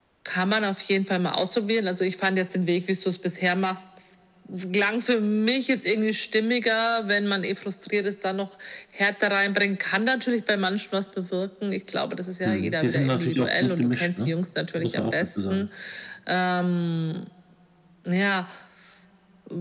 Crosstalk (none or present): present